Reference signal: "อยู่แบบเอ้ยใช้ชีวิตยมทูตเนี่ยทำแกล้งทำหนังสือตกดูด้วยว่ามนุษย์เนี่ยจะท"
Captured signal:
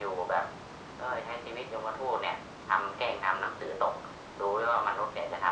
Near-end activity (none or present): none